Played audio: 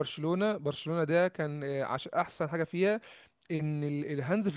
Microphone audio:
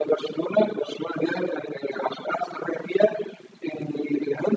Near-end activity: none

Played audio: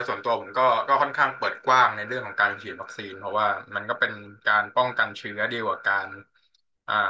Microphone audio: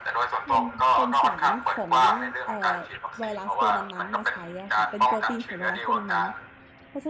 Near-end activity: present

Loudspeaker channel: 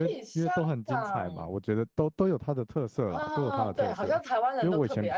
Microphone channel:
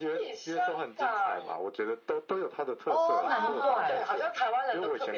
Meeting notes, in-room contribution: present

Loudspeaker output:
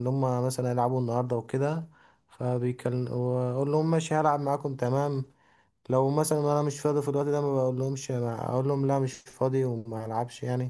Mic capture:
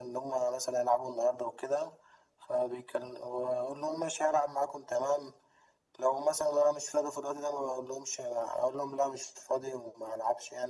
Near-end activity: none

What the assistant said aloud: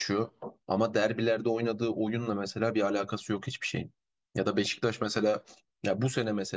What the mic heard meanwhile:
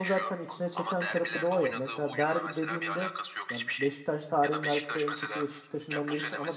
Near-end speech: present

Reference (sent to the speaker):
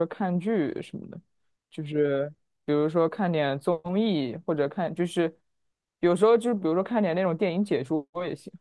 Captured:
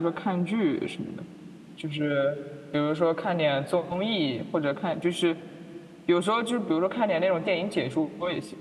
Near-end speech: none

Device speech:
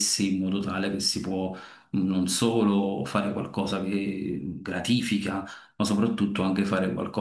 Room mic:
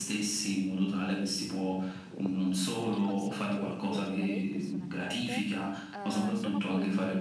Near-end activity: present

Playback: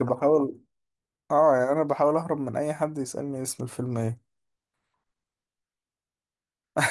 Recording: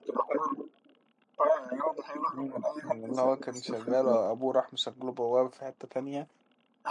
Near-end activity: present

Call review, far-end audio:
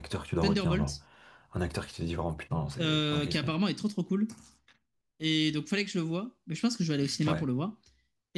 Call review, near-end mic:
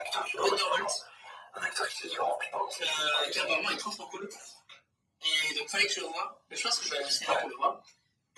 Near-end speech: none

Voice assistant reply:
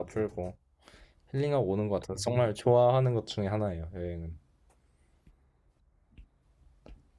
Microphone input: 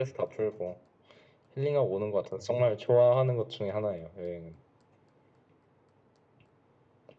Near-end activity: none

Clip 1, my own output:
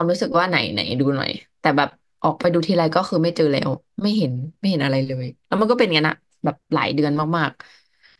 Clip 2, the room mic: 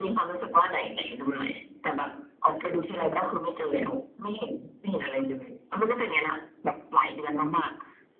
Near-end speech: none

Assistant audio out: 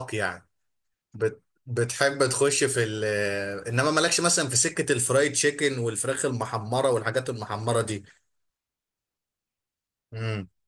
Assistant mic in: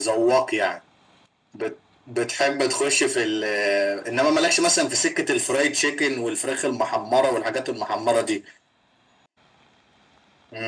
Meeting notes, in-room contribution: none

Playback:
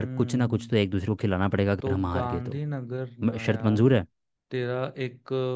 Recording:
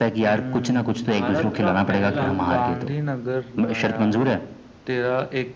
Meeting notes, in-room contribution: present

